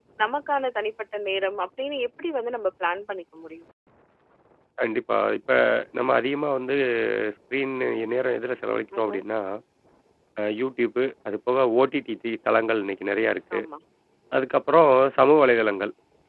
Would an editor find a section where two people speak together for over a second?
No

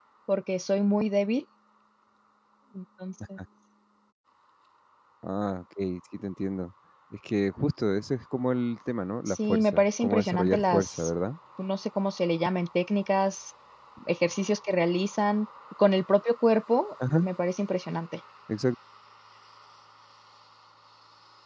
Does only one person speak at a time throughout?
No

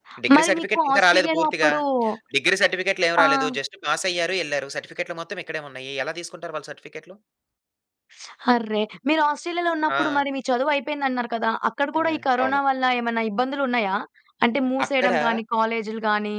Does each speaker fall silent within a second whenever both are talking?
No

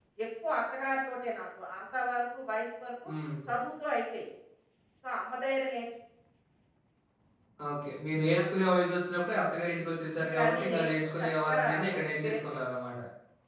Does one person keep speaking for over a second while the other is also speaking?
Yes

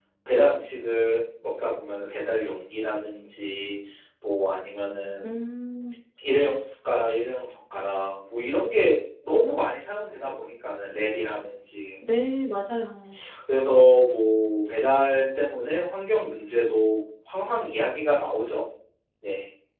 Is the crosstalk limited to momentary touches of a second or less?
Yes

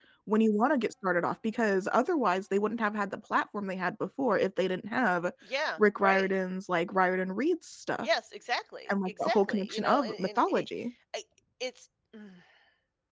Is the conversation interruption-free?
No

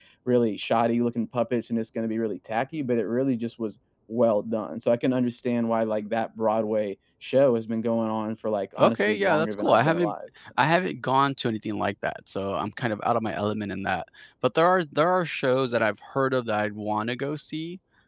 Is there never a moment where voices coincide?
No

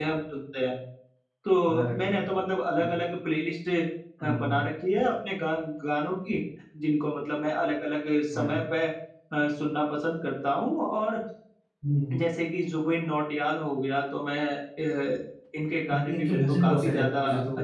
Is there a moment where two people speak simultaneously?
Yes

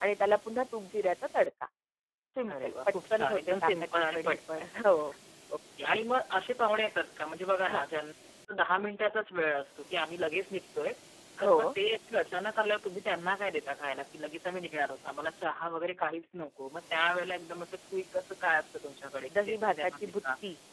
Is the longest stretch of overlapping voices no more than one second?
No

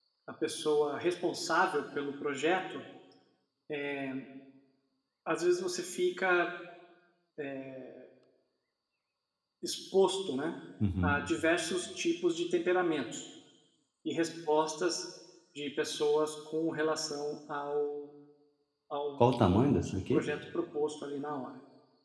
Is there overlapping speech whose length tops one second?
No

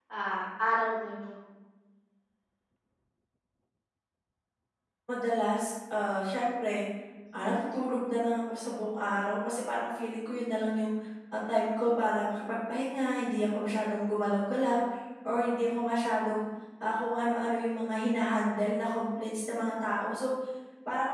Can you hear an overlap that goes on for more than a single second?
No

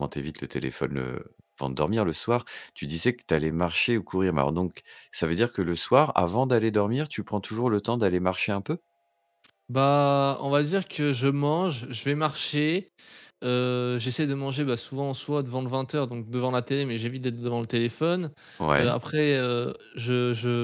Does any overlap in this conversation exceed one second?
No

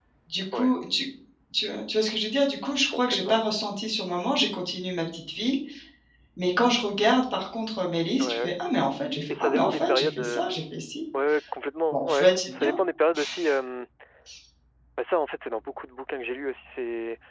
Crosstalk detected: Yes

